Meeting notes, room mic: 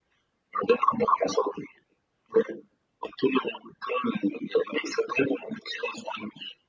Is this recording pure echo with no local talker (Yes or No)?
Yes